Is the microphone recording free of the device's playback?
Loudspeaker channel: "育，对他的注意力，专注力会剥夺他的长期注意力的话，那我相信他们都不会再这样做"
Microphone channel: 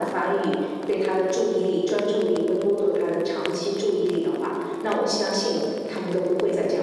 No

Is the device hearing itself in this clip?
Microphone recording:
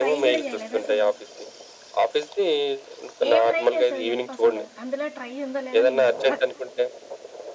Yes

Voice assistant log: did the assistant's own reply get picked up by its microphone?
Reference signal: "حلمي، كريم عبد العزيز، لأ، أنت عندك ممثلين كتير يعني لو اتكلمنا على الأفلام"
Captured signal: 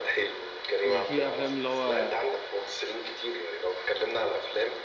Yes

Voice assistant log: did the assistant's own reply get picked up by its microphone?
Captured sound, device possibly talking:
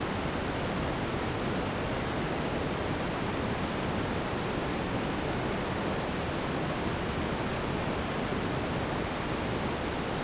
No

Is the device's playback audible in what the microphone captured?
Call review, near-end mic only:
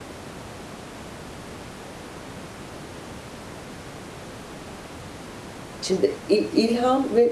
No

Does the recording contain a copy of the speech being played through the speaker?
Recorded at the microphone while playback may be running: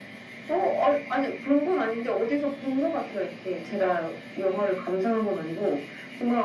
Yes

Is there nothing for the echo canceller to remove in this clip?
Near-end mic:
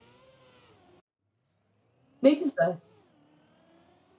Yes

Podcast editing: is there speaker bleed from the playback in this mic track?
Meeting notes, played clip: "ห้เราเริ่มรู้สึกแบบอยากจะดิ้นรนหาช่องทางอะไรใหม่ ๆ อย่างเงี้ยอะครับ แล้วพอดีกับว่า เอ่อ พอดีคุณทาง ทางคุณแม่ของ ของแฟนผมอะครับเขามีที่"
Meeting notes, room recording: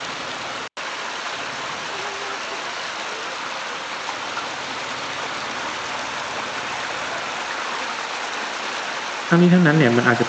No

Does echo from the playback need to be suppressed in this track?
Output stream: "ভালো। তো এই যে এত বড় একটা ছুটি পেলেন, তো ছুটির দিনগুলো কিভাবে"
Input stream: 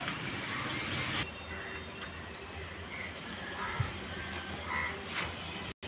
No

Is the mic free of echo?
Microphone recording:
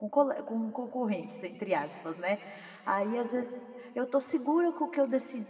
Yes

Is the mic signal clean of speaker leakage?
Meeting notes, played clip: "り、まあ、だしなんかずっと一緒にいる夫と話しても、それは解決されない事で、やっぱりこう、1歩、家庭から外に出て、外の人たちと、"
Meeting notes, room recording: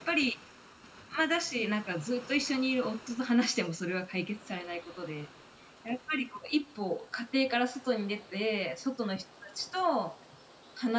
No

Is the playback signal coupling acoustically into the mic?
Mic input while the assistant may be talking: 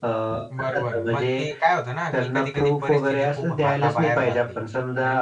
Yes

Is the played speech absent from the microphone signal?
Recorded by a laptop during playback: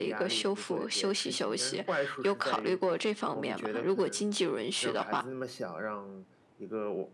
No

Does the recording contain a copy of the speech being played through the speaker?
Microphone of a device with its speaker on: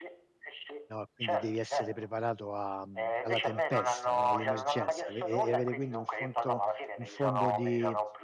Yes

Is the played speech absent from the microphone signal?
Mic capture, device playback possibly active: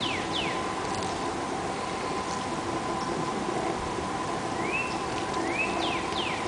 Yes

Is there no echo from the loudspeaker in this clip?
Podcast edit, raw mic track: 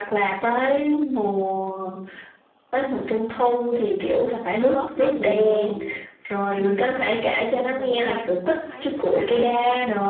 No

